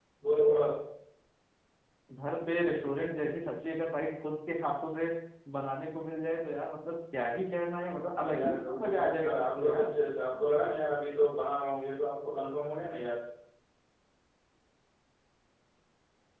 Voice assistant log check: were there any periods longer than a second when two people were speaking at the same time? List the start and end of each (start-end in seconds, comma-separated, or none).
8.2-9.9